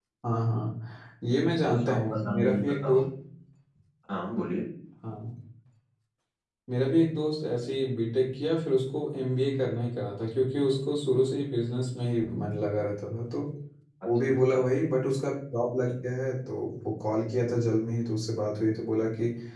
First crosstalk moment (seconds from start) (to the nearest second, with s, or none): 2 s